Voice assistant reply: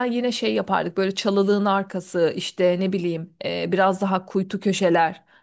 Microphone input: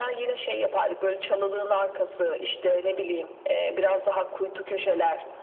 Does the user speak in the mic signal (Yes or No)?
No